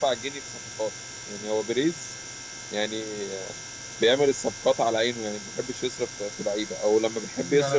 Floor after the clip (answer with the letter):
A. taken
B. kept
A